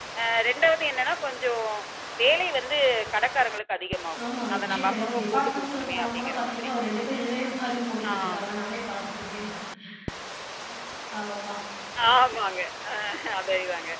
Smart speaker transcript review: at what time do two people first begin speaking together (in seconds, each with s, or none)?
4.2 s